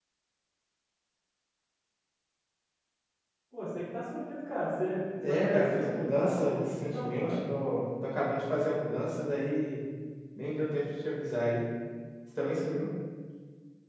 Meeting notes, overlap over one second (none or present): present